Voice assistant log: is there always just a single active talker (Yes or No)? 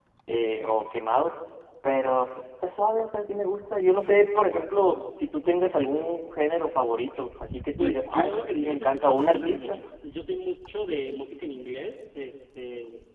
No